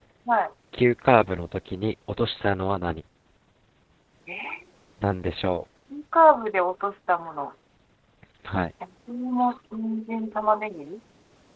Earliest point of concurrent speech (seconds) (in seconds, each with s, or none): none